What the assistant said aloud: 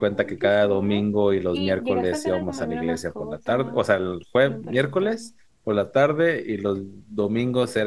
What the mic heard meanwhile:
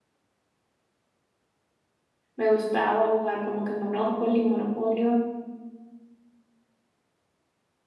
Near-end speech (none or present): present